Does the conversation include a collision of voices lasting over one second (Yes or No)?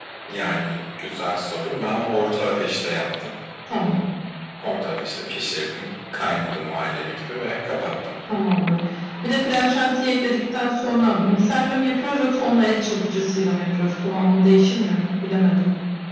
No